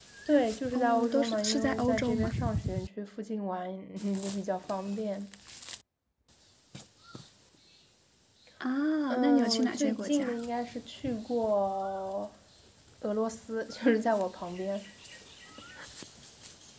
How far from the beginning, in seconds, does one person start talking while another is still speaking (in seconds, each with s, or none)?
0.7 s